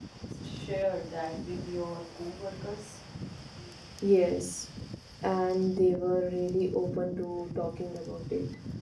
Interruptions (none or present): none